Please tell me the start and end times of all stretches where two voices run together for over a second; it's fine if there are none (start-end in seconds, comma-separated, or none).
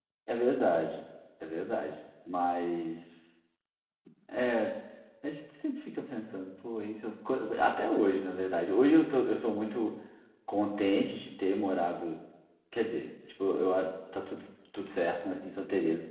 none